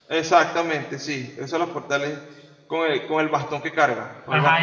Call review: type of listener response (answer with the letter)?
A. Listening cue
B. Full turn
B